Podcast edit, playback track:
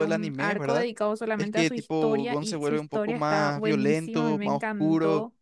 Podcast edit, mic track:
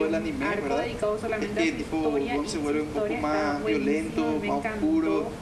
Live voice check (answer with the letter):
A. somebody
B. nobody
B